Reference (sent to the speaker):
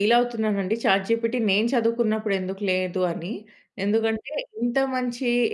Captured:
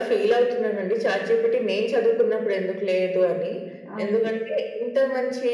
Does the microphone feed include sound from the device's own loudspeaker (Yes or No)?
Yes